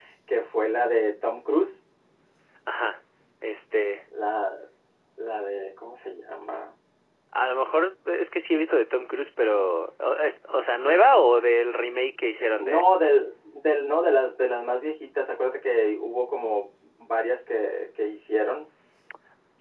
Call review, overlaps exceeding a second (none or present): none